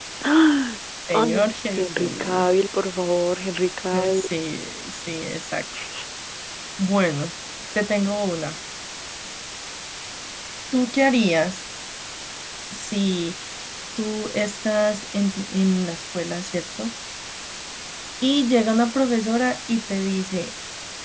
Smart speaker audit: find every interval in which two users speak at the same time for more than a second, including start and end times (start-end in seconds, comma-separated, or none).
1.1-2.5